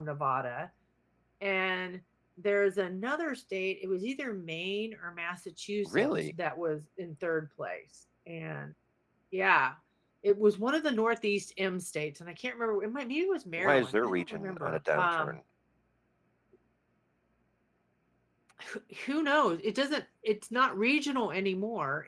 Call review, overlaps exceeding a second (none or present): present